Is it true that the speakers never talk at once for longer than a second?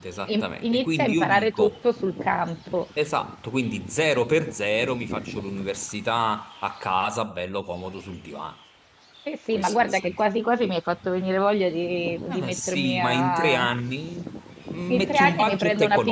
No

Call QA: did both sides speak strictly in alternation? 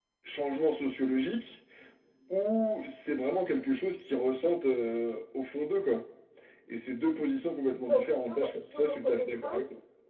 No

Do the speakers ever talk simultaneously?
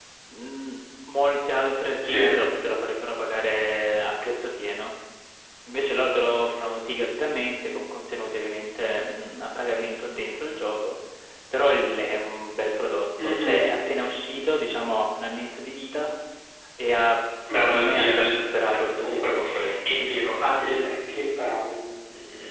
Yes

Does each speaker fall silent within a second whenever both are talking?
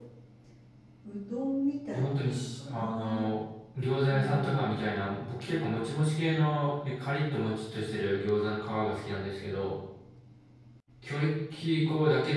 No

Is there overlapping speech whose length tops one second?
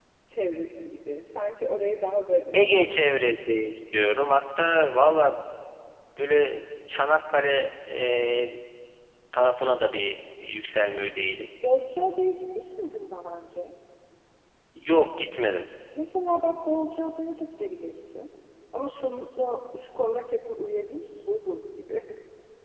No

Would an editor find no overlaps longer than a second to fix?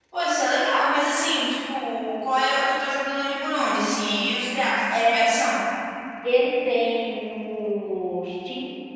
Yes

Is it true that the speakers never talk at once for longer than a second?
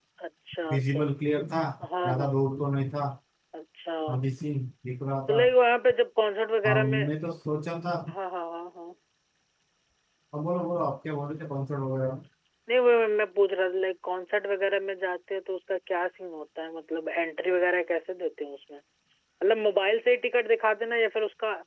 Yes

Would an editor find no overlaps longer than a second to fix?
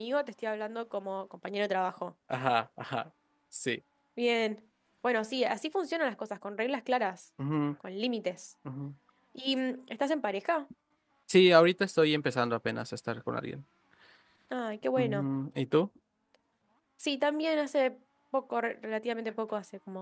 Yes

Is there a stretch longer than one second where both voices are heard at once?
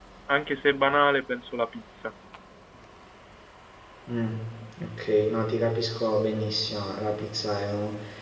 No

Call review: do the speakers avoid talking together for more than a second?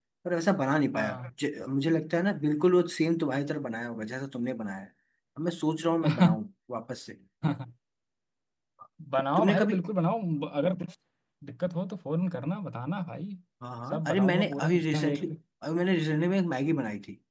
No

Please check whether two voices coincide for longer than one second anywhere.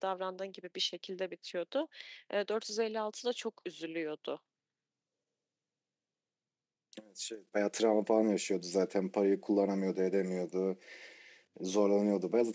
No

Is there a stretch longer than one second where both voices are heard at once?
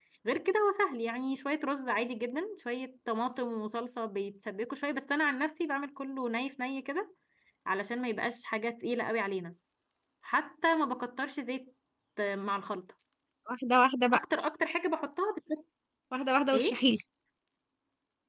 No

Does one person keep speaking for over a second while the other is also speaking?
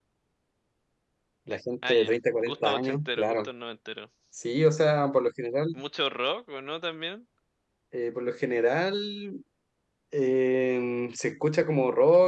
Yes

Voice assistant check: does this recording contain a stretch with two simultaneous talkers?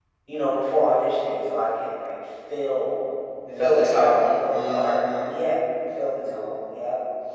Yes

